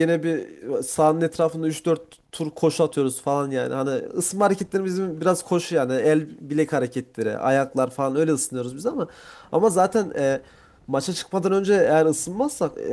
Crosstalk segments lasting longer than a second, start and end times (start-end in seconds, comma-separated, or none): none